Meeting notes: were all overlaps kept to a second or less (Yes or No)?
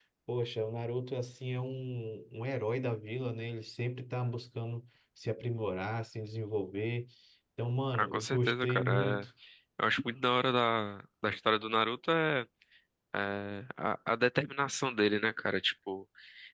No